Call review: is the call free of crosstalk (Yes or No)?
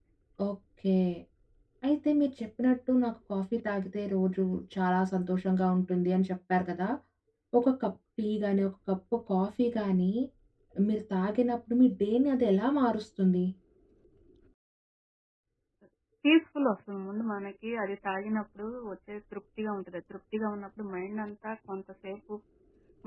Yes